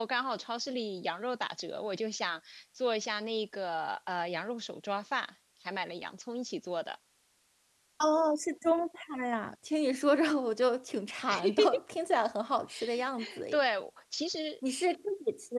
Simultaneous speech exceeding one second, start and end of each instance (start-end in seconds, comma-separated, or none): none